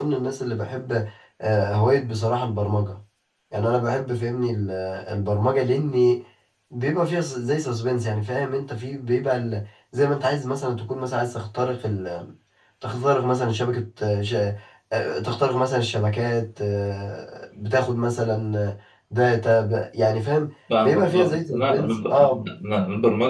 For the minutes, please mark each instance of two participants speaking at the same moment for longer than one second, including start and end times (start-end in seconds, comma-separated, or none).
20.8-22.4